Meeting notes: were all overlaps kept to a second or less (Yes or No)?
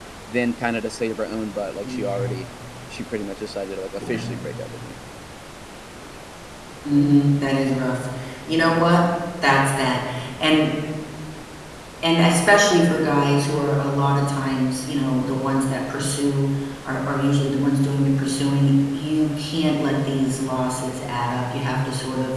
Yes